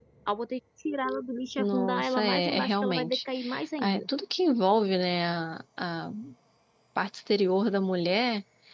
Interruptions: present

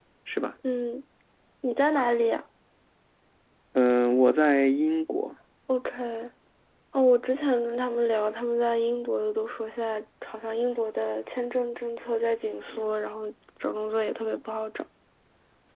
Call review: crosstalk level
none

